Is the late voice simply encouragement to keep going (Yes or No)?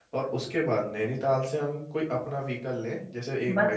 No